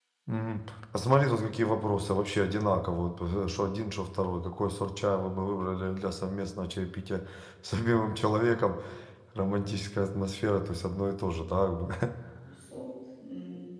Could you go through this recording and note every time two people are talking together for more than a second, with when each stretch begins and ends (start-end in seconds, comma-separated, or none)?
none